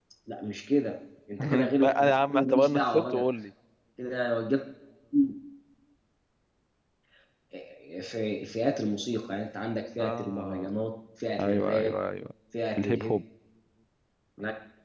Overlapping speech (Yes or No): Yes